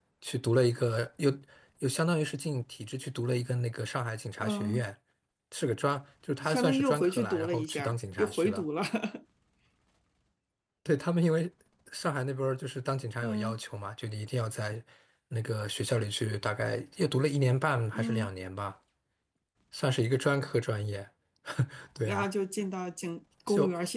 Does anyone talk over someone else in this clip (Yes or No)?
Yes